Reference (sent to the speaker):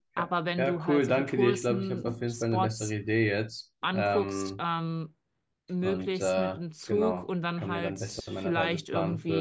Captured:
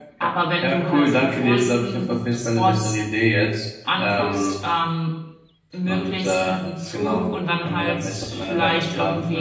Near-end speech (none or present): none